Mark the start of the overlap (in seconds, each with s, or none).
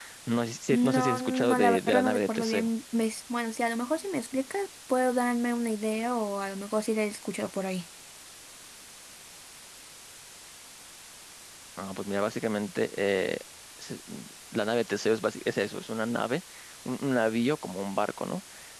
0.7 s